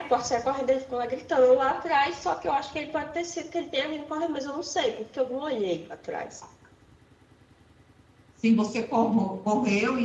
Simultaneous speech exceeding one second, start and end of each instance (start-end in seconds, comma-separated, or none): none